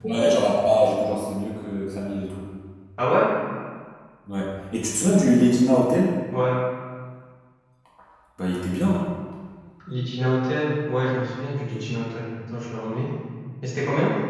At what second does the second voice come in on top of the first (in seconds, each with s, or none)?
none